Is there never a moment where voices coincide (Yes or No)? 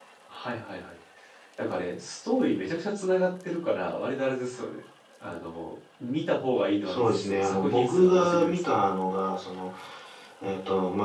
No